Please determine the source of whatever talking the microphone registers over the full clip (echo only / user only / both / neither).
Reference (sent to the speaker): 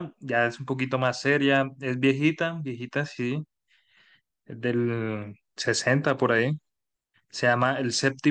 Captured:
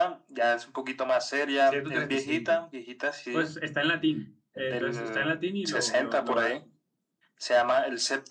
both